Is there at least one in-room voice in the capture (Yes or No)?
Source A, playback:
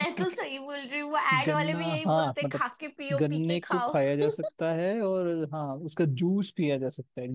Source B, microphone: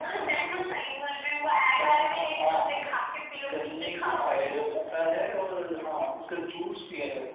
Yes